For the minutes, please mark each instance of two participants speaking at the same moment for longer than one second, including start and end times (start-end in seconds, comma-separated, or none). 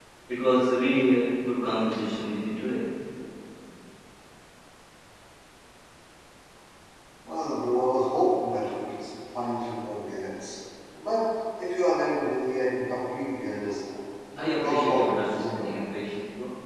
14.4-15.7